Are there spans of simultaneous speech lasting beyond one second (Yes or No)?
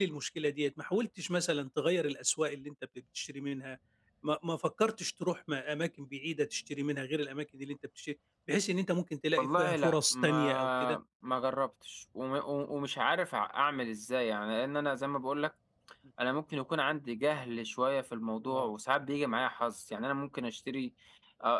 Yes